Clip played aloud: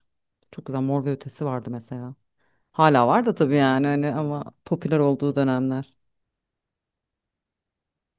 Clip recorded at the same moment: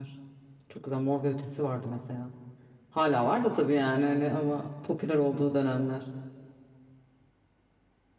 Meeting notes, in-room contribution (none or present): none